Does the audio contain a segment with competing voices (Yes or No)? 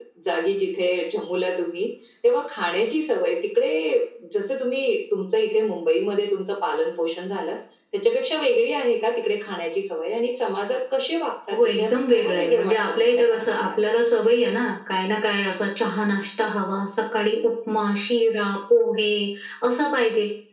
Yes